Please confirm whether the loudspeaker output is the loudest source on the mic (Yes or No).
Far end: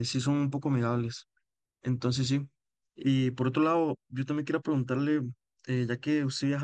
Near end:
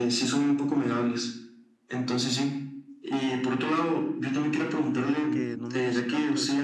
Yes